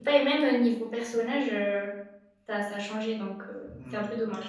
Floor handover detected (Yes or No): Yes